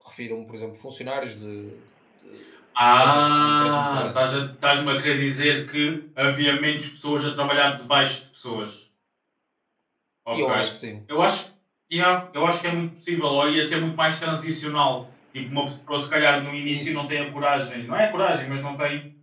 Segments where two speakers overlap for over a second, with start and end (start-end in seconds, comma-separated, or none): 3.0-4.2